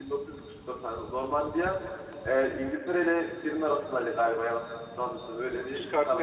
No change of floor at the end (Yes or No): No